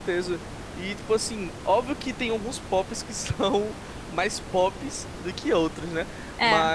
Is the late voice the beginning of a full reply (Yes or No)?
No